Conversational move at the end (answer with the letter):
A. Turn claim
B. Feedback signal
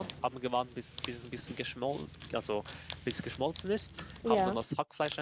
B